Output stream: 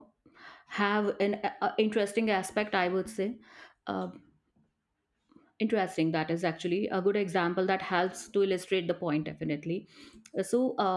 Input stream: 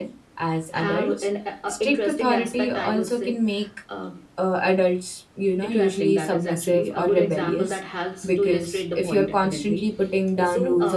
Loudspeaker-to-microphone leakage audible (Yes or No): Yes